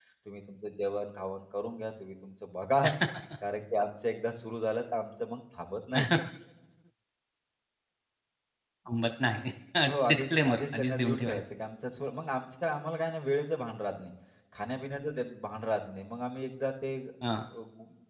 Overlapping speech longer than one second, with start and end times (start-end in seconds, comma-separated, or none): 10.1-11.4